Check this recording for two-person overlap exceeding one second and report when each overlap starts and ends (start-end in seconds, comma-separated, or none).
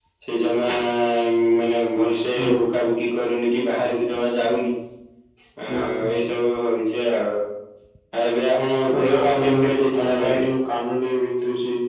8.9-10.5